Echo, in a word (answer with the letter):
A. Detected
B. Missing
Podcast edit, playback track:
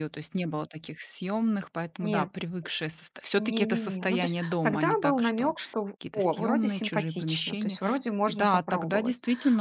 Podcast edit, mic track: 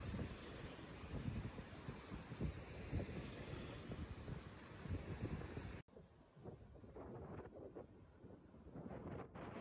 B